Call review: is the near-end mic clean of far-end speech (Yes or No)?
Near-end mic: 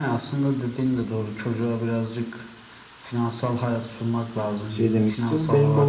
No